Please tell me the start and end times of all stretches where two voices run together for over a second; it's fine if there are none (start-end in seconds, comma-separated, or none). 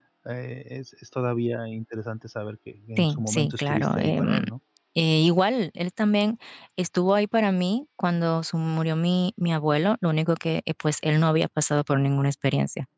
3.0-4.4